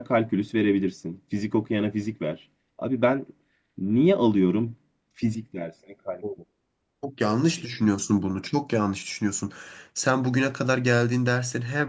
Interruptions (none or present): none